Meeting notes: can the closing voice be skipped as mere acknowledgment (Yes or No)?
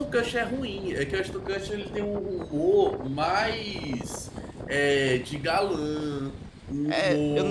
No